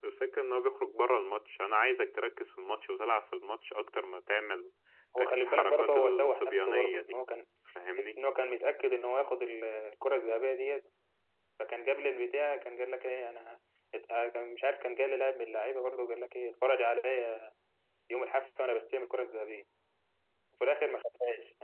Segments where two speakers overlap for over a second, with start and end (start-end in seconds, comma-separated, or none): 5.2-7.2